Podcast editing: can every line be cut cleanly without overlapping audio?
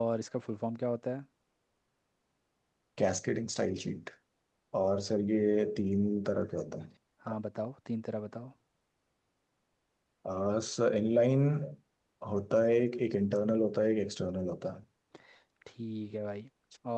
Yes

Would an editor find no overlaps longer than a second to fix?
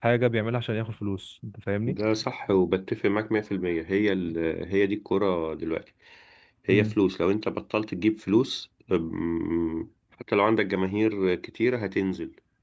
Yes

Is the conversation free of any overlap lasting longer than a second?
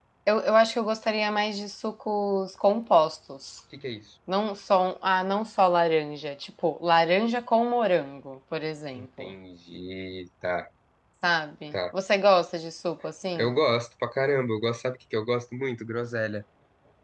Yes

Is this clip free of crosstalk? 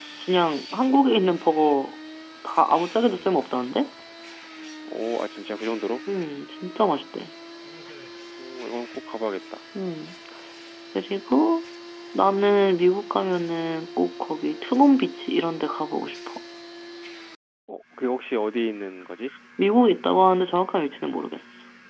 Yes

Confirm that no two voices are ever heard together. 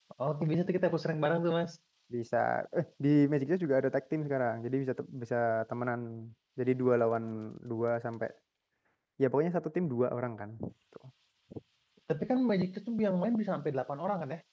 Yes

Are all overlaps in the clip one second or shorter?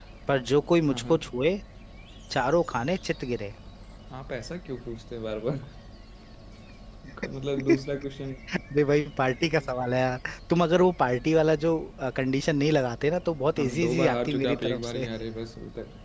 No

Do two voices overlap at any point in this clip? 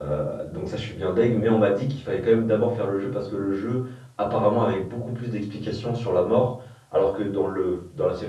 No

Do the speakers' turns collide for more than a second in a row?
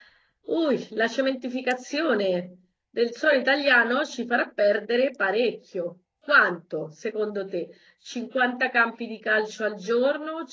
No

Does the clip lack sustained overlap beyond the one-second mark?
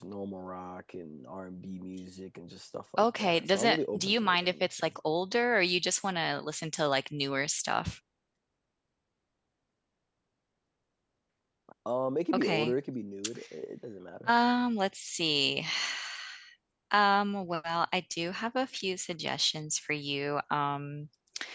No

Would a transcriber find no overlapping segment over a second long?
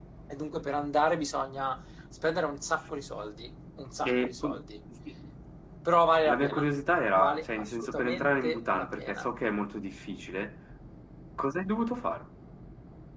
No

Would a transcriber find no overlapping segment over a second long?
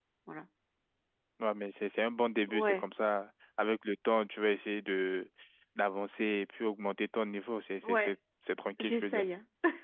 Yes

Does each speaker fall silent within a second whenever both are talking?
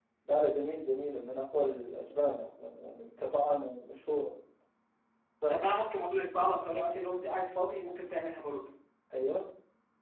Yes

